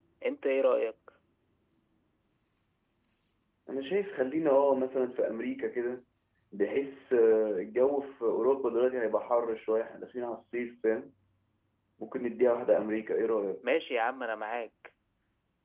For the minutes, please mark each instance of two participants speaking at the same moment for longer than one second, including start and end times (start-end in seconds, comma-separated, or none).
none